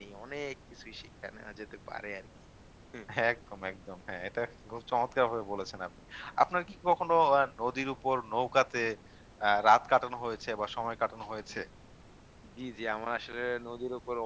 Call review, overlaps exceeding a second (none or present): none